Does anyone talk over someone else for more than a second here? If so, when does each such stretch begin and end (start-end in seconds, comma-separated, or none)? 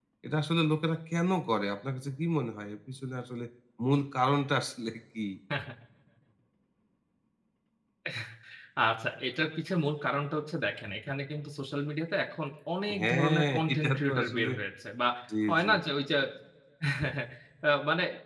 13.0-14.5